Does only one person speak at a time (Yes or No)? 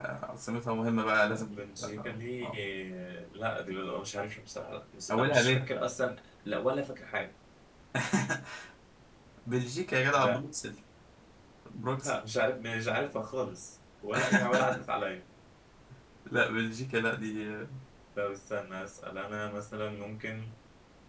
No